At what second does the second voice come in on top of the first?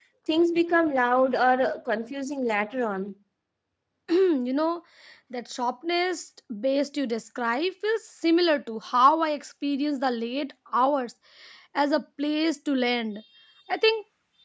none

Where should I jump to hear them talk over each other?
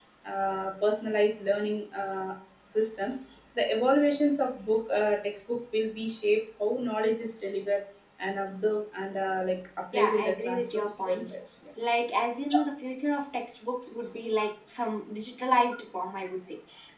9.9 s

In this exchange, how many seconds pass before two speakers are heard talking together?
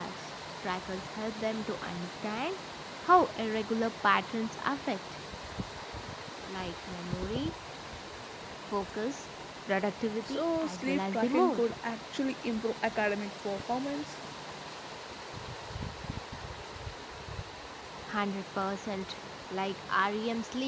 10.3 s

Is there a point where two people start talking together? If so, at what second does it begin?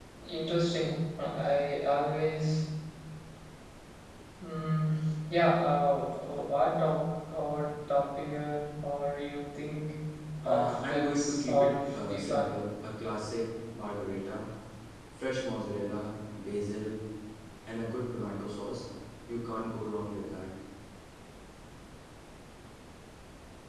10.4 s

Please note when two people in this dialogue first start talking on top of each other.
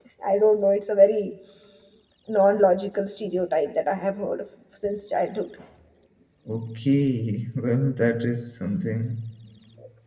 none

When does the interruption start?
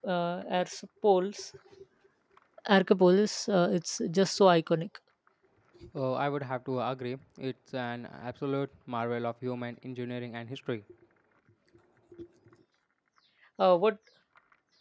none

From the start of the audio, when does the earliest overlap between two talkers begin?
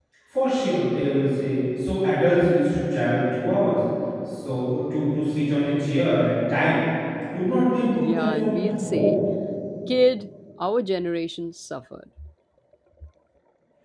7.9 s

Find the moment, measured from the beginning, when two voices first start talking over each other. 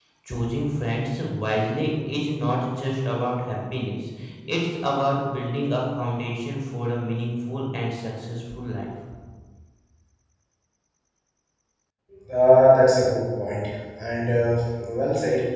none

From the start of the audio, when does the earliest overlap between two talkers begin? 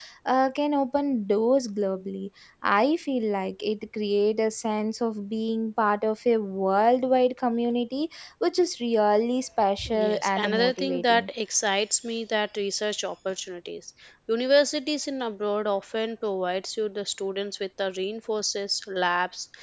9.9 s

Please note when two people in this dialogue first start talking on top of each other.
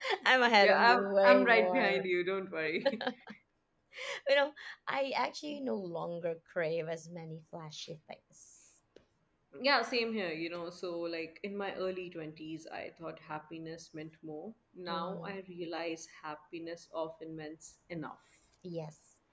0.6 s

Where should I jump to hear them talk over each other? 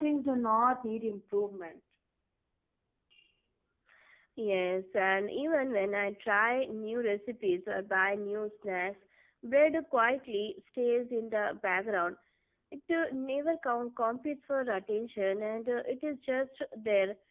none

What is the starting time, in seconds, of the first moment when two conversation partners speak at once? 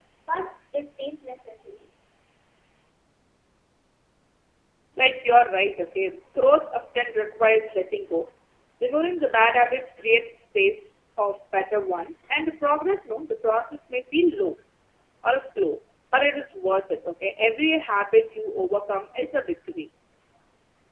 none

